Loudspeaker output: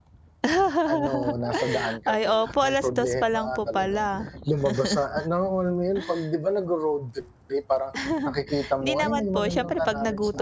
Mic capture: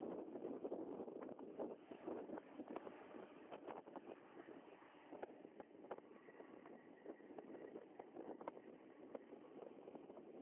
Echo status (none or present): none